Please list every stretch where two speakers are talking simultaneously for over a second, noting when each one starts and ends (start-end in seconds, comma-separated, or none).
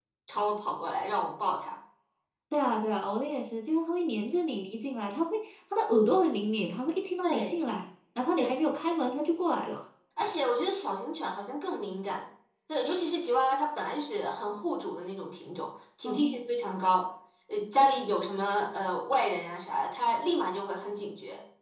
none